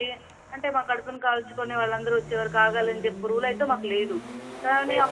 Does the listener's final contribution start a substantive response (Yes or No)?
No